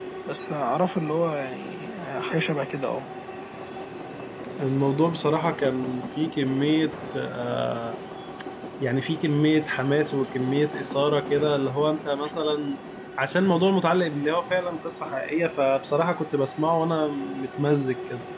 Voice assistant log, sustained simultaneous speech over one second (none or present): none